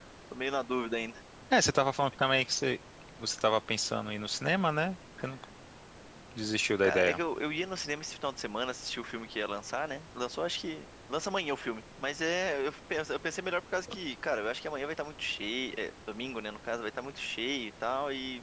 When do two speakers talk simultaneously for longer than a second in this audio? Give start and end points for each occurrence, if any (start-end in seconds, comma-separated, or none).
none